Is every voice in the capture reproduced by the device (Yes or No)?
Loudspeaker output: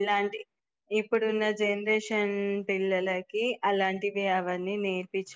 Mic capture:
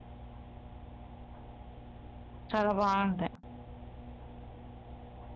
No